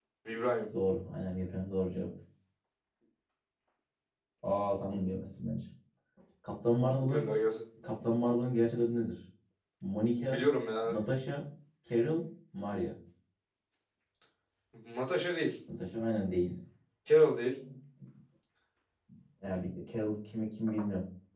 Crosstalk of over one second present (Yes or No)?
No